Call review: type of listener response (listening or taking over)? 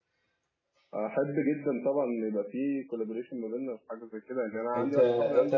taking over